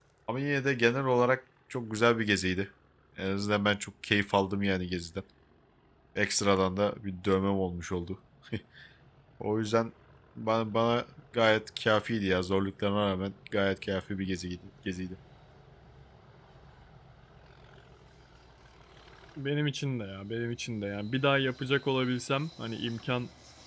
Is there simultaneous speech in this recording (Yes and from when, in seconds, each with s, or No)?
No